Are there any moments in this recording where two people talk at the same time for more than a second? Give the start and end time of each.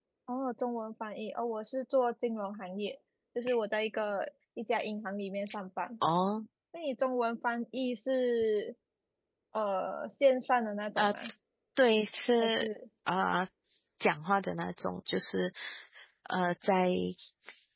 none

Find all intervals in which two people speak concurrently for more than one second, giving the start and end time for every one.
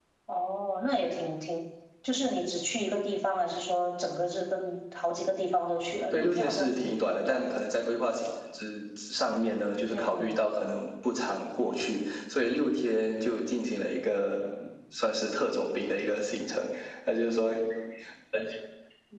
6.1-7.6

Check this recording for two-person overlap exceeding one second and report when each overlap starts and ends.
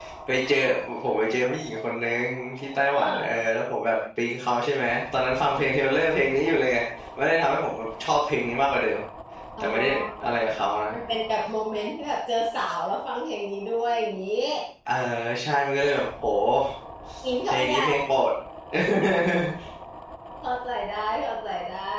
none

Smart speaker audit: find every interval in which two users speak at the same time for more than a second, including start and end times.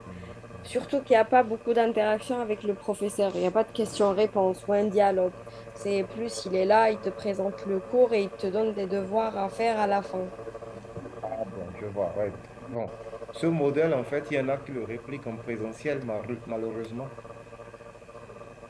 none

